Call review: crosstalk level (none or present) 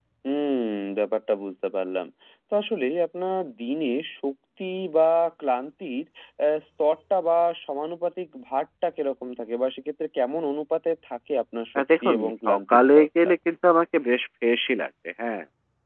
present